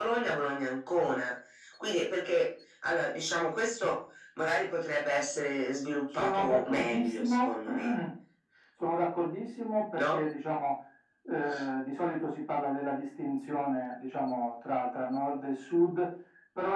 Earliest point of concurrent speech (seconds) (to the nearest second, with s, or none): 6 s